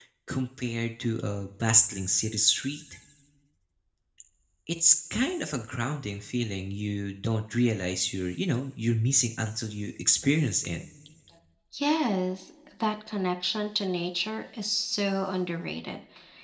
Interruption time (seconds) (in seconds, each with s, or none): none